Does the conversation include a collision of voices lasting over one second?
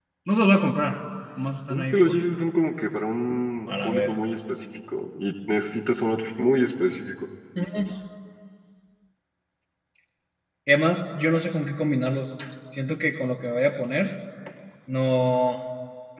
No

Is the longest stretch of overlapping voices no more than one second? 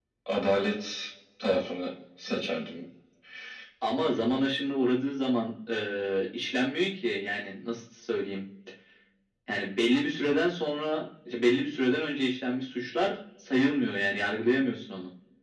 Yes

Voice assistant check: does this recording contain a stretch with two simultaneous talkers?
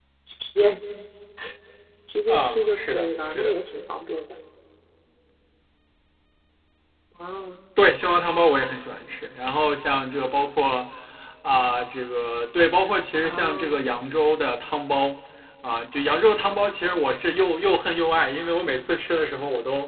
Yes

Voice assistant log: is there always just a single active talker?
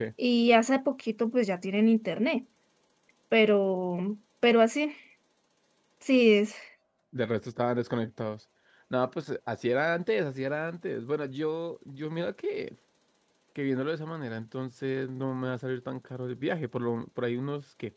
Yes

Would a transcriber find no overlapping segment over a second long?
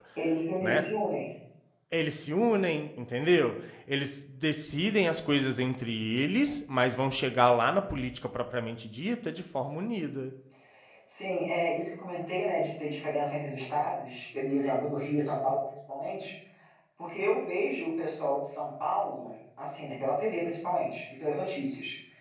Yes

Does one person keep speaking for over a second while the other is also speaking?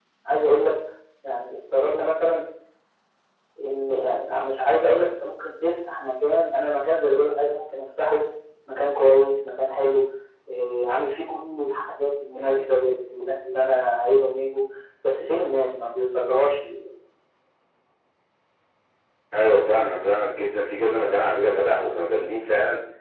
No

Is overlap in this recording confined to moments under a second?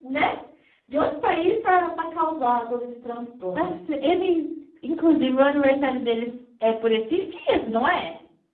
Yes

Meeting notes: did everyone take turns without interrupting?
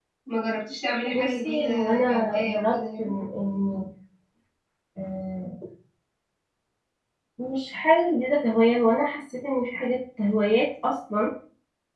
No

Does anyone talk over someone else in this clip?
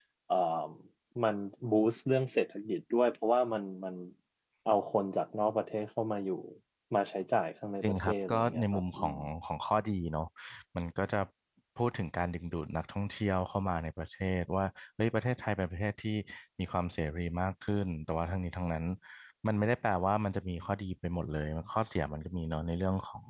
Yes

